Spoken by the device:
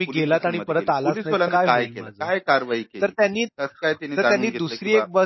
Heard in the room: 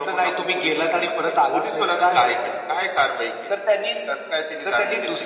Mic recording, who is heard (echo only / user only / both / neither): echo only